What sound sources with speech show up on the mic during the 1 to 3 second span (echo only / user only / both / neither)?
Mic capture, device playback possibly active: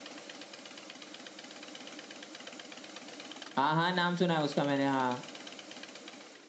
neither